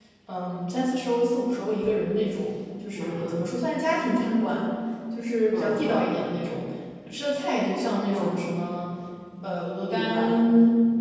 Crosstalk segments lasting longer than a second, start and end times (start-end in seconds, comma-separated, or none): none